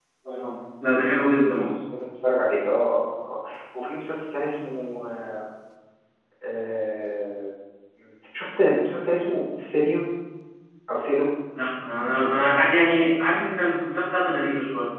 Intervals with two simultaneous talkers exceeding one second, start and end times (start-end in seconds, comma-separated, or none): none